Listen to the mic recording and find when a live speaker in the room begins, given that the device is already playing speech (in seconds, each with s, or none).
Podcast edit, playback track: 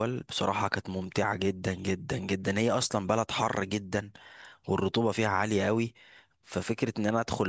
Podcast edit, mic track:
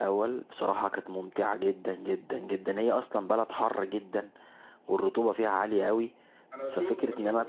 6.5 s